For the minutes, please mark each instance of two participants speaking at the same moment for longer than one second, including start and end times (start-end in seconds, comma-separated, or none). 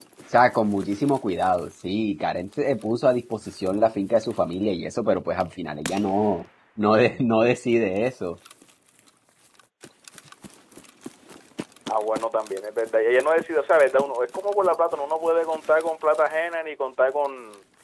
none